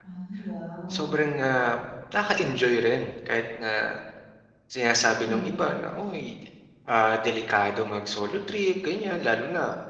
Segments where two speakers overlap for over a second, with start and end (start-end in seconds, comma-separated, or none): none